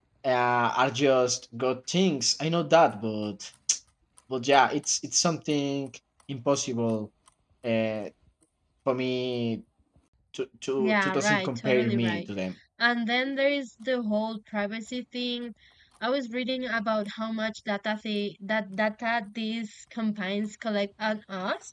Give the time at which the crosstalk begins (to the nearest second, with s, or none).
11 s